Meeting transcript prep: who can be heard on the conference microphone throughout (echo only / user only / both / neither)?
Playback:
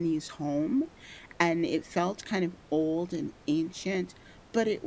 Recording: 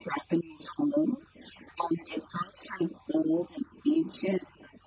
echo only